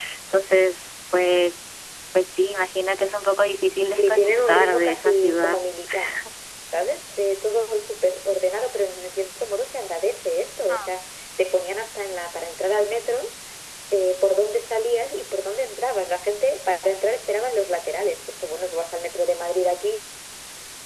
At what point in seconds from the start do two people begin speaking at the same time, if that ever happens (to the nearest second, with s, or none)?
4 s